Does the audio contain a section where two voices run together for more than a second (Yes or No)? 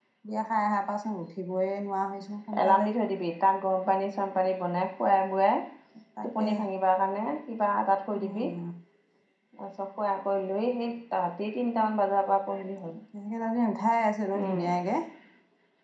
No